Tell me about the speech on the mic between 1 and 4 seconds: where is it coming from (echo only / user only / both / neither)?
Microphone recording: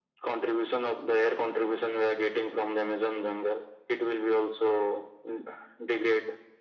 echo only